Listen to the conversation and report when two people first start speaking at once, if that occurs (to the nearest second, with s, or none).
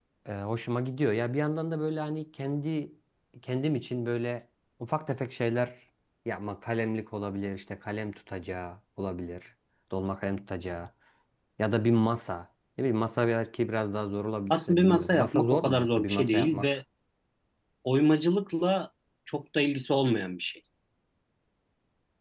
15 s